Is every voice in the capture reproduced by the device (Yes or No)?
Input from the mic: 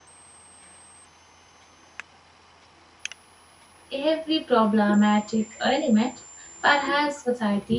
No